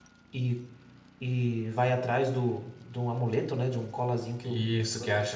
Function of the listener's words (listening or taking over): taking over